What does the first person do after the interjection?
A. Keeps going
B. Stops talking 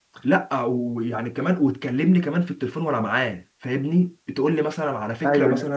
A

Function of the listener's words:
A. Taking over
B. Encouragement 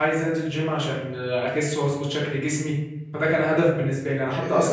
B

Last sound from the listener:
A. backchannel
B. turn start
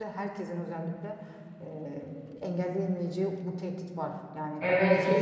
B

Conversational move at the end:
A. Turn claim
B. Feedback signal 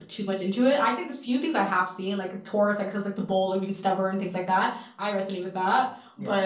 B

